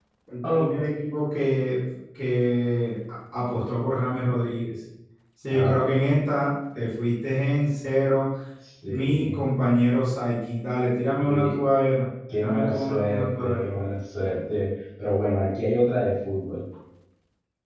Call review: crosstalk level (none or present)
present